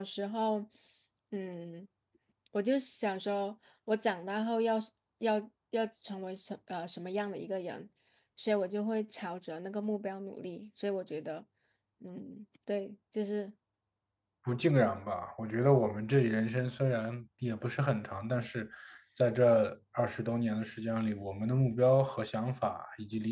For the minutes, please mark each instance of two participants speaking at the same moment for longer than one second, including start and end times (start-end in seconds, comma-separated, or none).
none